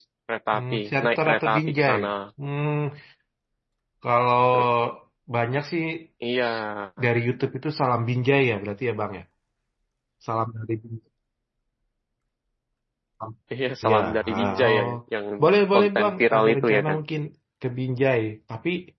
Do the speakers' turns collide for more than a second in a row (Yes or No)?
Yes